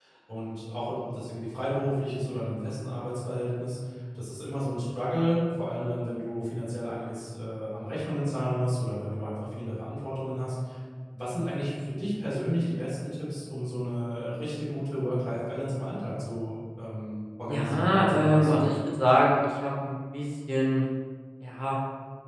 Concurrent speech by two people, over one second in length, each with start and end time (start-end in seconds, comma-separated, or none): 17.5-18.7